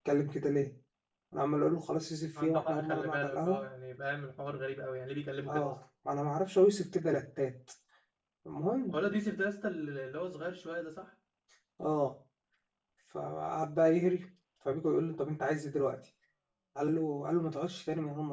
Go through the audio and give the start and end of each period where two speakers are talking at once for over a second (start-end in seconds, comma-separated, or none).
2.4-3.6